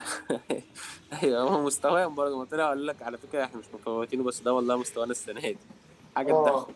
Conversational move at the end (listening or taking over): taking over